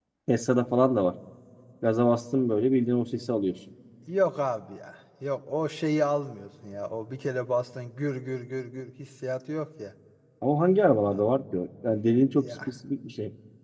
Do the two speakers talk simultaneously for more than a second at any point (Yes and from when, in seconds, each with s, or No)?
No